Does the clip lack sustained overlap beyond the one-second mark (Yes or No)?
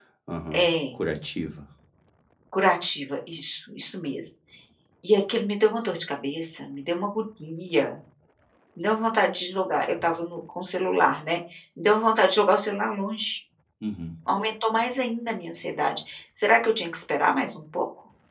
Yes